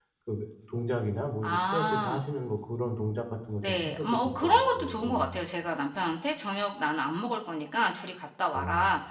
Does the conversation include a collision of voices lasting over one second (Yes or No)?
Yes